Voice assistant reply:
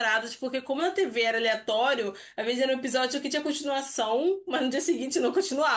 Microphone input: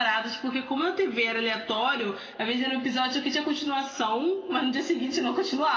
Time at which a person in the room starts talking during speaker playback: none

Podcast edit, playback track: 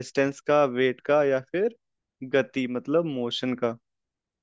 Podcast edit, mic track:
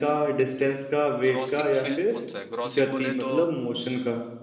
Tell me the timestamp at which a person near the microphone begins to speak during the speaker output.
1.3 s

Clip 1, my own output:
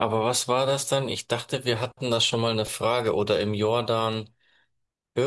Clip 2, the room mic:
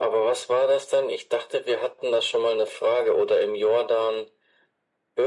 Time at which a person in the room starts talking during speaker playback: none

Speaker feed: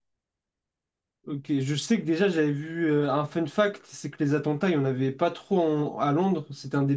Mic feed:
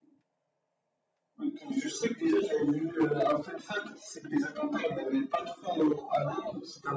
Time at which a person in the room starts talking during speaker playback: none

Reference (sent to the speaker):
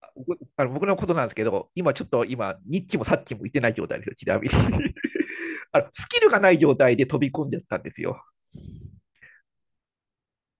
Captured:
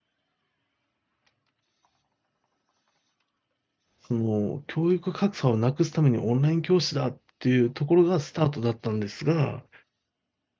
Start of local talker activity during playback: 4.0 s

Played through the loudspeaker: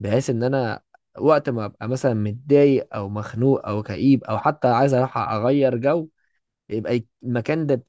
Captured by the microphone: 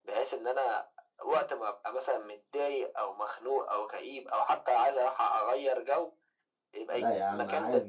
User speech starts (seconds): 6.9 s

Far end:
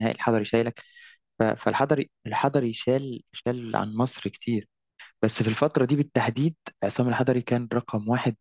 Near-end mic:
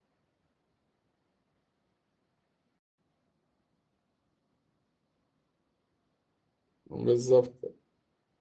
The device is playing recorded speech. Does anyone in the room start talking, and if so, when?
6.9 s

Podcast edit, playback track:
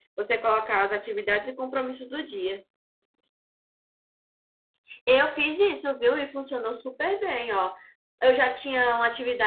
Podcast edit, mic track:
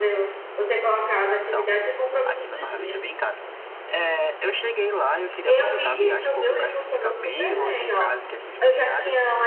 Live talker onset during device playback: 1.4 s

